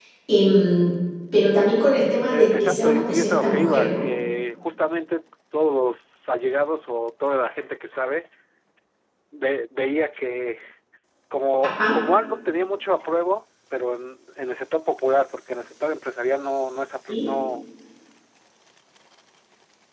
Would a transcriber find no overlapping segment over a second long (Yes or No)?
No